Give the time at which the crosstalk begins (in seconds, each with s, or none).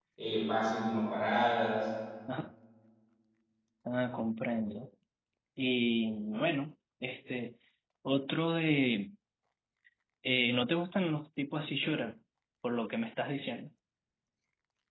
none